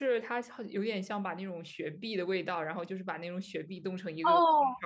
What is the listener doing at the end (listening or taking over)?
taking over